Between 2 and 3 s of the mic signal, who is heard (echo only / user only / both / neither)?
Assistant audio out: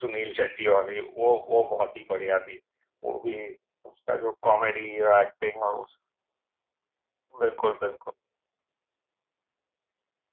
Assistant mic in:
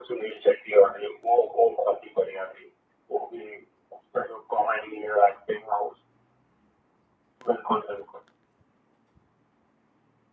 echo only